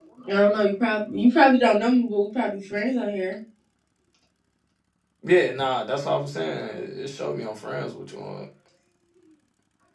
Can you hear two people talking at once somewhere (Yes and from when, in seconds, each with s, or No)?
No